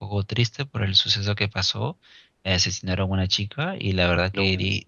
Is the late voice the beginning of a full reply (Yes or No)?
No